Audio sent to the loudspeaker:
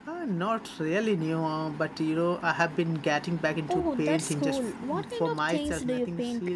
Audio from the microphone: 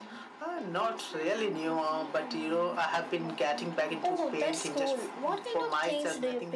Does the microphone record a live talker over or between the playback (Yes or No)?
Yes